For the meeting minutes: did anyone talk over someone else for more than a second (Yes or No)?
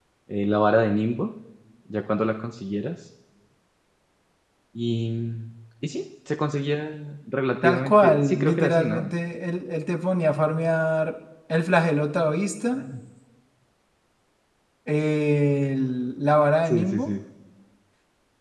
Yes